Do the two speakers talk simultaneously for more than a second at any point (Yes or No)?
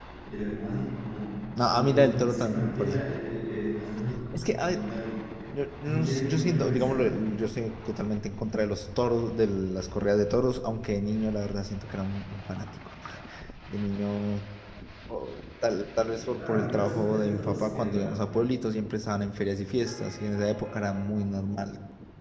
Yes